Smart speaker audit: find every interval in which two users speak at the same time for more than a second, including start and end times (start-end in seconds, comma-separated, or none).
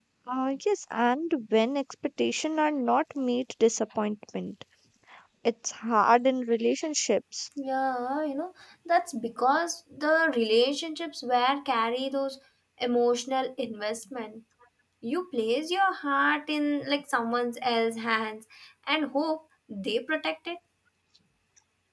none